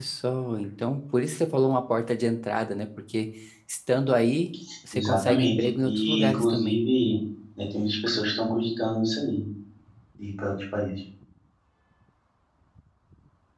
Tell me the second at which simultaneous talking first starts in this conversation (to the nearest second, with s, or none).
5 s